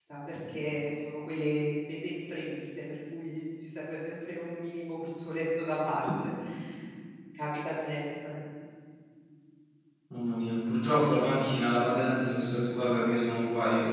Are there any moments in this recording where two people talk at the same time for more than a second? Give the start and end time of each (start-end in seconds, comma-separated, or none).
none